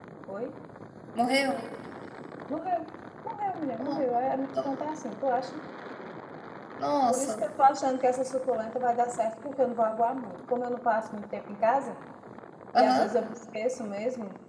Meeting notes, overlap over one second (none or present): none